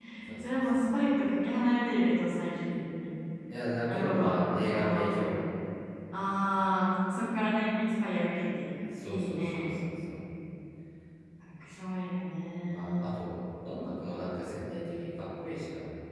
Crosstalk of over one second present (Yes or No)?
Yes